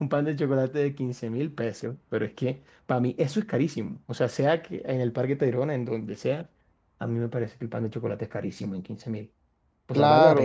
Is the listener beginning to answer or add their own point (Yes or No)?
Yes